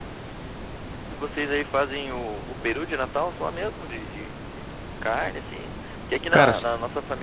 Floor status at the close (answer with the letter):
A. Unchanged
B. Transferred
A